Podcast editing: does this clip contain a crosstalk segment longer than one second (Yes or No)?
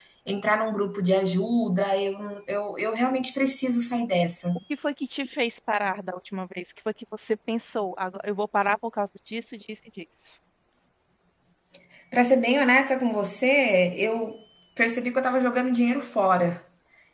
No